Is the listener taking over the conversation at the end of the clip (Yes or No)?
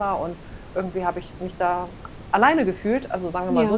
No